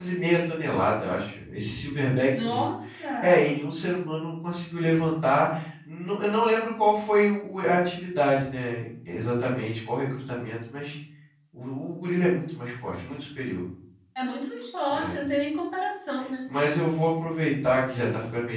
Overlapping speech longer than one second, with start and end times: none

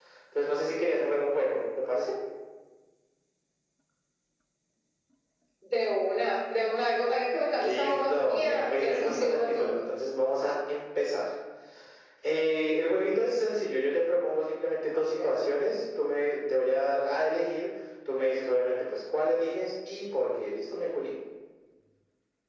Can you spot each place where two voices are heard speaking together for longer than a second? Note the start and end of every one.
7.6-9.8

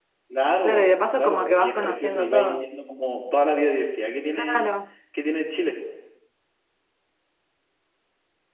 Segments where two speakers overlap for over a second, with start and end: 0.6-2.7

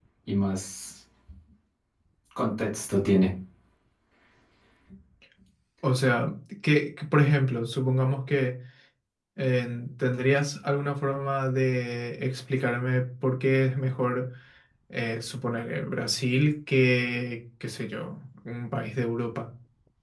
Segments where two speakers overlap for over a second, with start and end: none

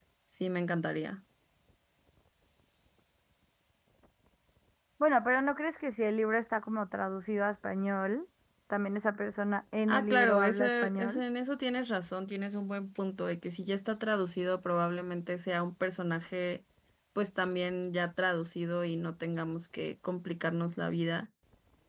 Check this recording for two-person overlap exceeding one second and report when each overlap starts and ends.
9.9-11.2

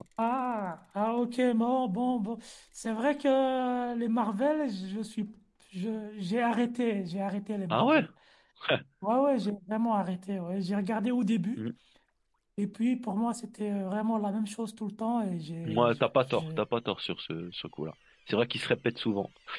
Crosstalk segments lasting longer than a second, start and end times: none

